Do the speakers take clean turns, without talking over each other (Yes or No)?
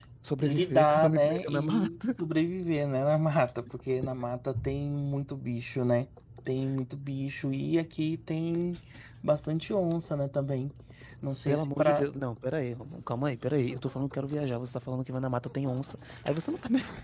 No